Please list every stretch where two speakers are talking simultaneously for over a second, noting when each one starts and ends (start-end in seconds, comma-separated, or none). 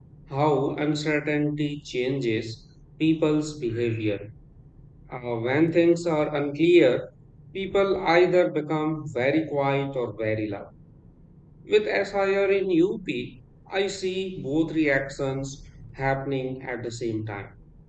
none